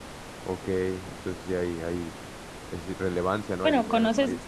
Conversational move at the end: taking over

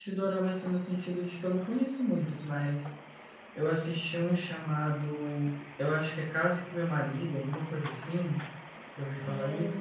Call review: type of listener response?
taking over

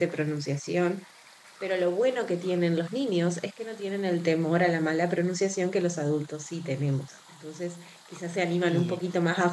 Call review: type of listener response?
listening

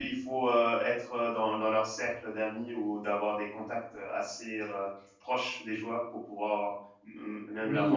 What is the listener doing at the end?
taking over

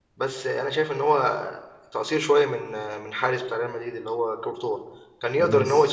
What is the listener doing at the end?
listening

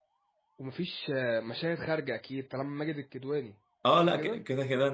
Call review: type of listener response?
taking over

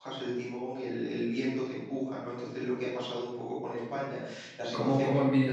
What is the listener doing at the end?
taking over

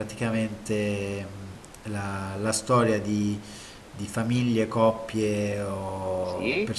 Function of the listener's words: listening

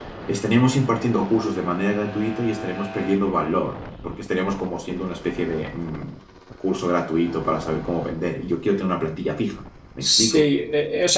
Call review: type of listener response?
taking over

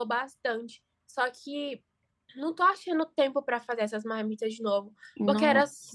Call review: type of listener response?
listening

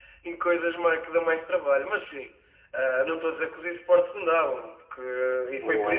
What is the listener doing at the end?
listening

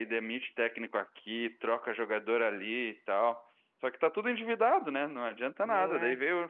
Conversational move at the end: listening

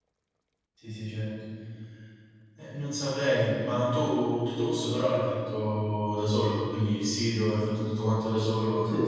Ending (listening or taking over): taking over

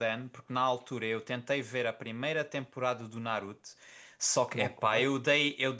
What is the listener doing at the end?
listening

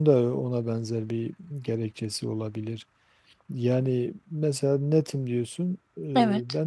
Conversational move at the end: listening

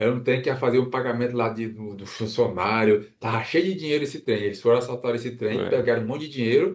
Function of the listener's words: listening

